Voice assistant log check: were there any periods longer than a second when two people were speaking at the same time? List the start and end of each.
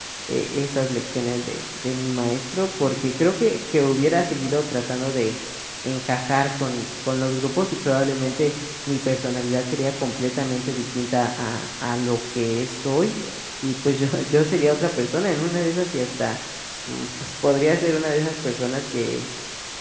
none

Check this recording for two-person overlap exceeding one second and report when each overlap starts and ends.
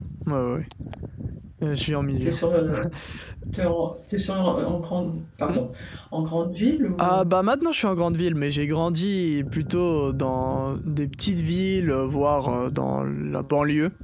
none

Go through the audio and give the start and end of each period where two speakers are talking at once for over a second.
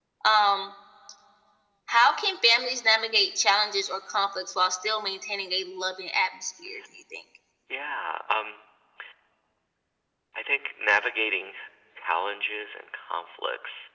none

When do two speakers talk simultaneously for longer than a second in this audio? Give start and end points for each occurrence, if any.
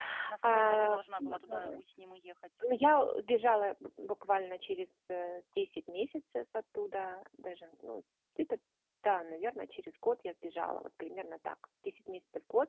0.5-1.8

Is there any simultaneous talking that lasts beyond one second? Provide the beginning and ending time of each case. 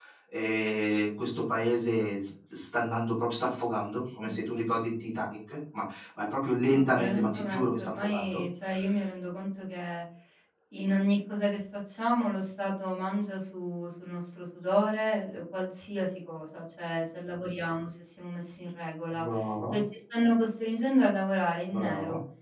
6.7-8.4

